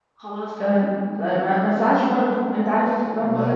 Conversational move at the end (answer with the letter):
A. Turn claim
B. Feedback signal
B